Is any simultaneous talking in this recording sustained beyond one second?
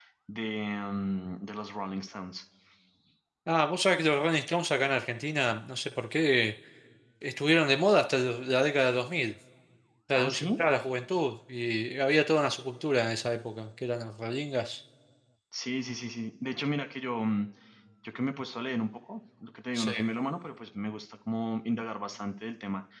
No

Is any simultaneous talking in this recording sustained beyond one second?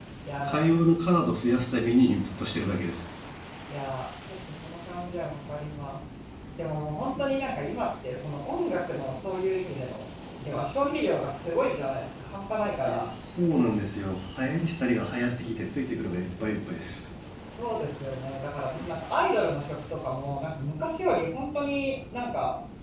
No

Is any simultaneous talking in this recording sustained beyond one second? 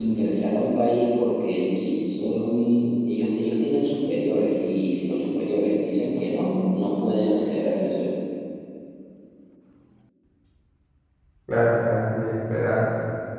No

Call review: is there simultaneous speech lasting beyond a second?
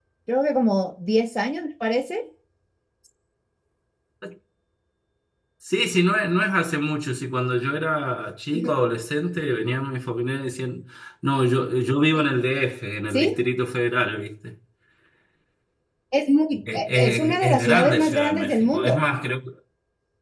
Yes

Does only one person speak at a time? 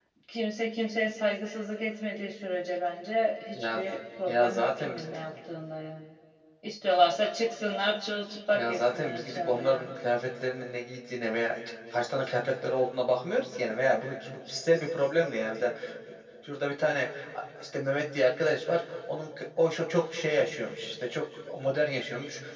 No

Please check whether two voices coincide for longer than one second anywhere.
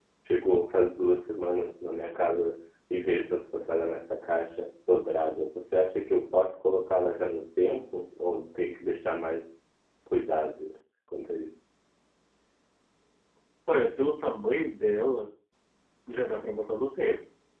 No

